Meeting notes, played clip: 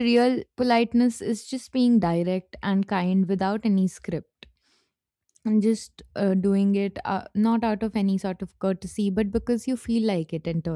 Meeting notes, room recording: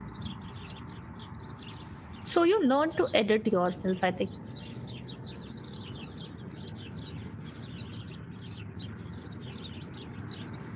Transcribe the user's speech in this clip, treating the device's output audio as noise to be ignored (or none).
So you learn to edit yourself, I think.